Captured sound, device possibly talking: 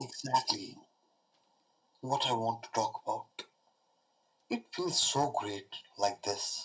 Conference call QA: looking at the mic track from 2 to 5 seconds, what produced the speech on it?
echo only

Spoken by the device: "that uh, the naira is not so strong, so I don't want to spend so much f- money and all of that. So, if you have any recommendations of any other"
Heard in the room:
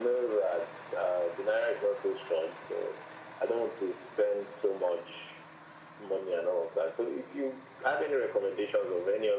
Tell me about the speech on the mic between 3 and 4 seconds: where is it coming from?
echo only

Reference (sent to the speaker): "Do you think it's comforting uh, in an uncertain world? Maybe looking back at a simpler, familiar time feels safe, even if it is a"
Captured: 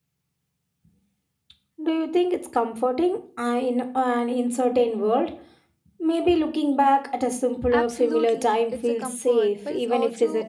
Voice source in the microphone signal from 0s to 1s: neither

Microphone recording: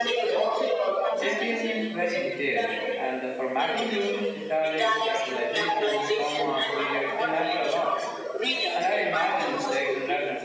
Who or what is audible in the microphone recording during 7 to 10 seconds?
both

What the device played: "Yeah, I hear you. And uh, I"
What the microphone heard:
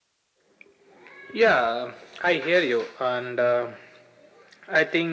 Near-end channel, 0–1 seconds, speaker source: neither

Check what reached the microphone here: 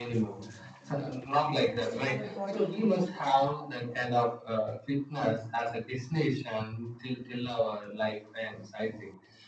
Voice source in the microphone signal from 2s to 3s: both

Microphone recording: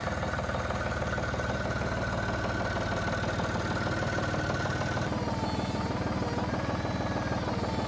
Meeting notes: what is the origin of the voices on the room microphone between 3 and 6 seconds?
neither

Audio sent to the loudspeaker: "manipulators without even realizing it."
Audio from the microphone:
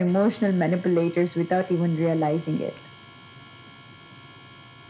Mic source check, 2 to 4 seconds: echo only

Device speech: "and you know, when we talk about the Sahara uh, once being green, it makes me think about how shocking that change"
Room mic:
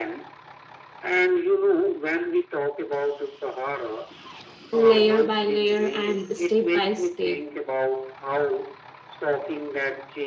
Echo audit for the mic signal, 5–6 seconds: both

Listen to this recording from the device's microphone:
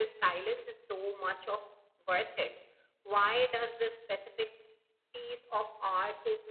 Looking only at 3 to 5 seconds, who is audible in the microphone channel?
echo only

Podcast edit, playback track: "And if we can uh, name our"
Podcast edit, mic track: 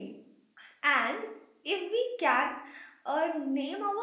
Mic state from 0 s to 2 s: echo only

